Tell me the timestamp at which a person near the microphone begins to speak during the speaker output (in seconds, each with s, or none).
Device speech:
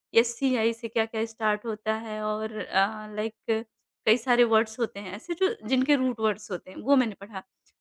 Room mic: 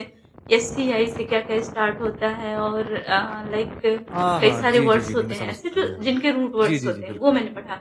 4.1 s